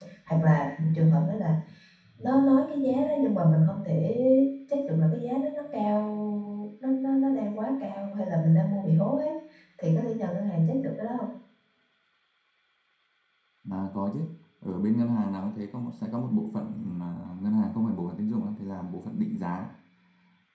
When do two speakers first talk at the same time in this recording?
none

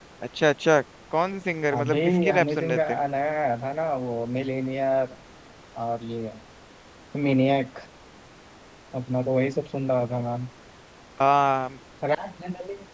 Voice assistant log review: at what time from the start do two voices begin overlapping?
1.8 s

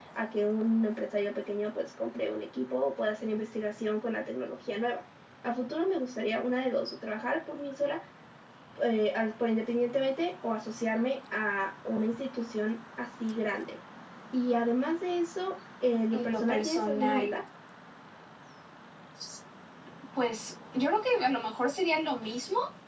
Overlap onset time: 16.1 s

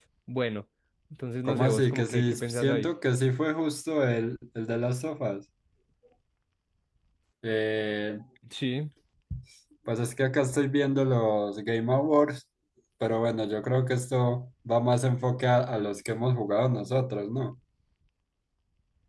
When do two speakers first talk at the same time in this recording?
1.4 s

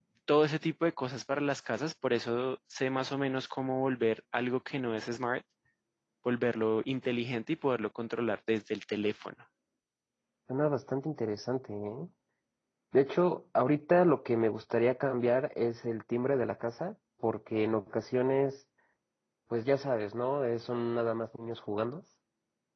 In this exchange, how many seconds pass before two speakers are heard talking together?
none

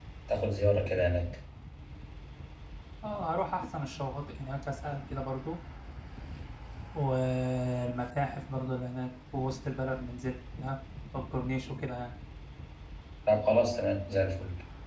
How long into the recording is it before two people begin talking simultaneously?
none

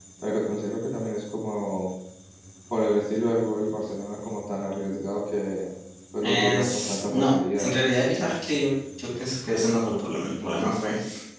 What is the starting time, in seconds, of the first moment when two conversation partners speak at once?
6.2 s

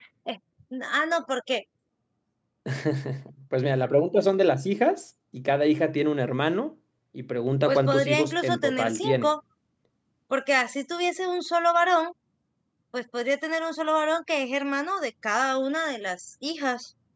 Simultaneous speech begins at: 7.7 s

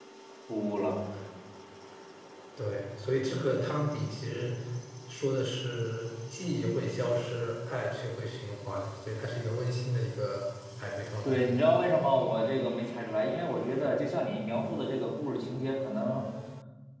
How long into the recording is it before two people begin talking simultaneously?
none

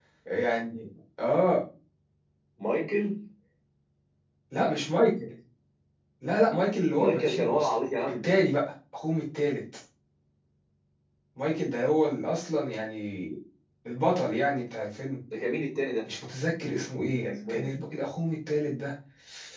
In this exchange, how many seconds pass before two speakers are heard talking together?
7.0 s

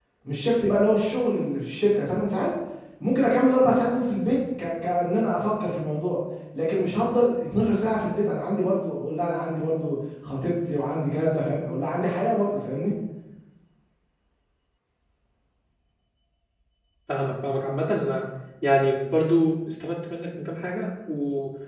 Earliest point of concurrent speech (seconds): none

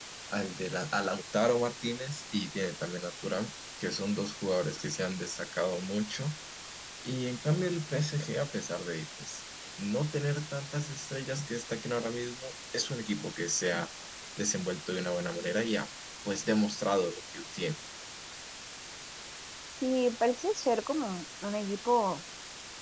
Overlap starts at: none

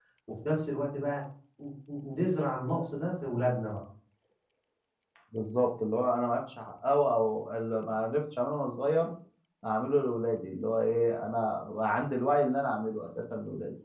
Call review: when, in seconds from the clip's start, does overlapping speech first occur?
none

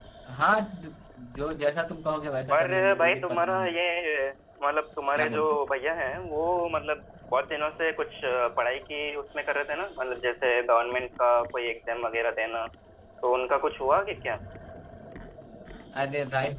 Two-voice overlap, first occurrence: 2.5 s

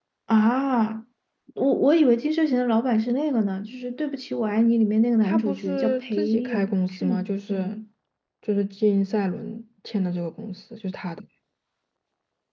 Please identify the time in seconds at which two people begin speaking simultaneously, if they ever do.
5.2 s

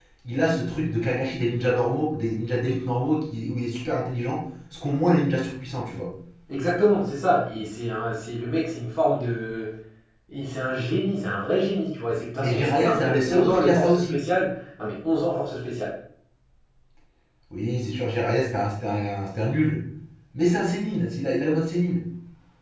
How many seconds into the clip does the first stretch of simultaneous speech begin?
12.4 s

